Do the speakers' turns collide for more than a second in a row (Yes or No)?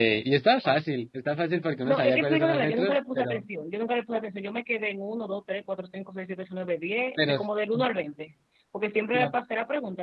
Yes